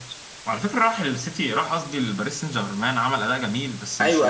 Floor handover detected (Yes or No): Yes